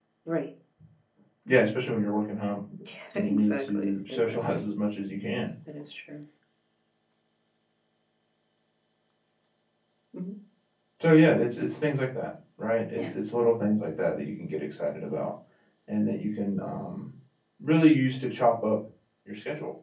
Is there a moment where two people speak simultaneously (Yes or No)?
Yes